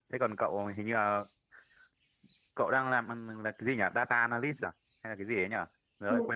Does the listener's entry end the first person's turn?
Yes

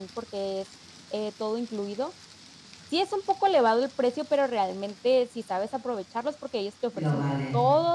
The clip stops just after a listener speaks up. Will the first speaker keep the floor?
Yes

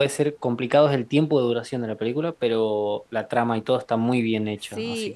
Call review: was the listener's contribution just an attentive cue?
No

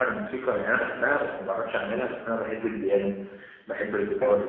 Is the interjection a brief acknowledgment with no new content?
Yes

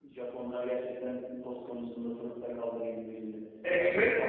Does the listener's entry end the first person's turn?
Yes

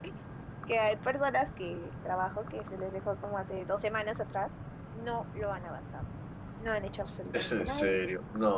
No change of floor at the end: No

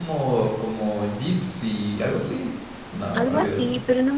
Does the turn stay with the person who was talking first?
No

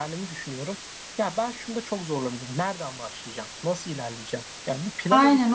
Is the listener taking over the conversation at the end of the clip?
Yes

